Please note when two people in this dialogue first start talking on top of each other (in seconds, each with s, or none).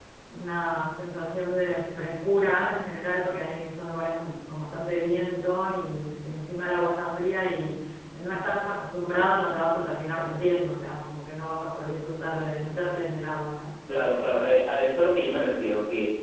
none